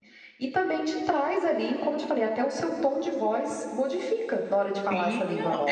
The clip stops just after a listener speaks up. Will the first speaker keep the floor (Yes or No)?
No